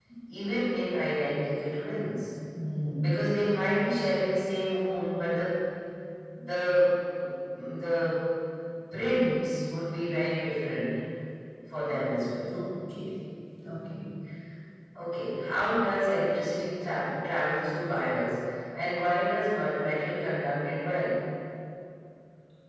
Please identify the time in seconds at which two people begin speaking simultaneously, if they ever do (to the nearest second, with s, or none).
none